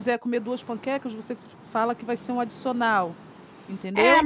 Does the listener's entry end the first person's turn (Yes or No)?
Yes